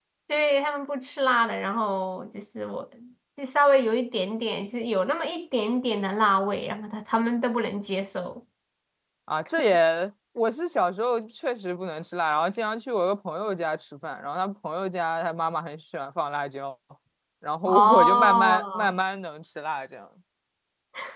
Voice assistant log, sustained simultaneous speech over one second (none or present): present